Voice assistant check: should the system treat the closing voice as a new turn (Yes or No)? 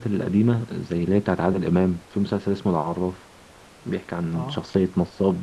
No